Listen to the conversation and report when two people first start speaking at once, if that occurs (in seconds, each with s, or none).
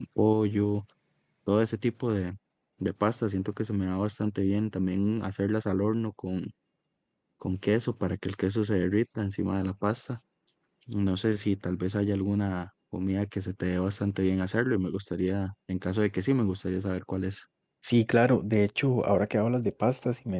none